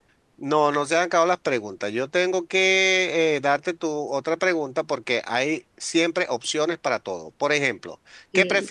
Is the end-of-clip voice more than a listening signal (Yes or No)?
No